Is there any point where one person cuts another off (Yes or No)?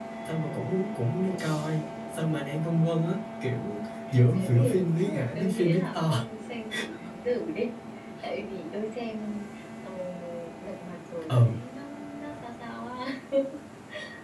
Yes